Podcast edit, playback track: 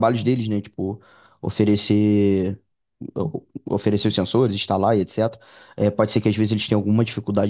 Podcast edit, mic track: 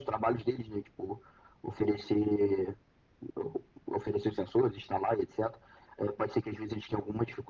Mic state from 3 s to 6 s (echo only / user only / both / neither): echo only